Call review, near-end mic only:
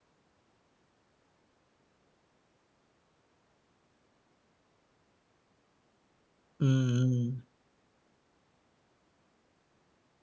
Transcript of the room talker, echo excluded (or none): హ్మ్. హ్మ్.